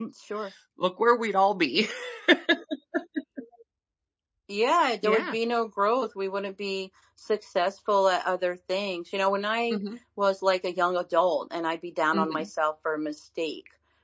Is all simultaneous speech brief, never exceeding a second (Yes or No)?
Yes